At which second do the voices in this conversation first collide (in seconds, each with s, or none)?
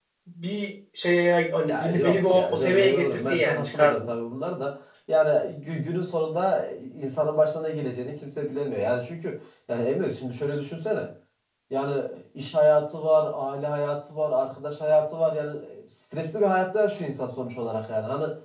1.6 s